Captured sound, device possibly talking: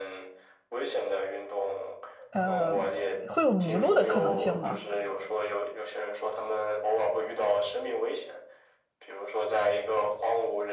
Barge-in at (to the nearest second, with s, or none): 2 s